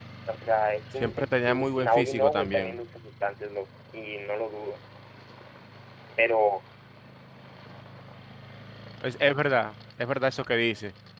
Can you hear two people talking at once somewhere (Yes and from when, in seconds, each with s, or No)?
Yes, from 1.0 s